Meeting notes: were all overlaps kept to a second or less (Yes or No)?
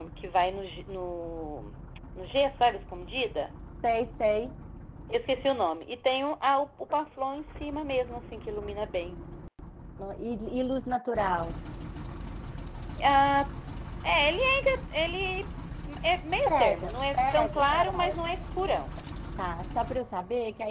No